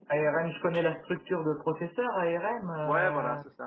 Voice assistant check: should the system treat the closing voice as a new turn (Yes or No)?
Yes